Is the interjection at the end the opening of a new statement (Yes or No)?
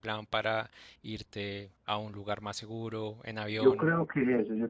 Yes